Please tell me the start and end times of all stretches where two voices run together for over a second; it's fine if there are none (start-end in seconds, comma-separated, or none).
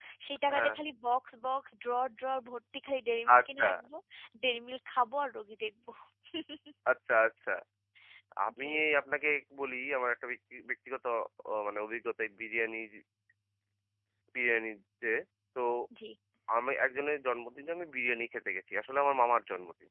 none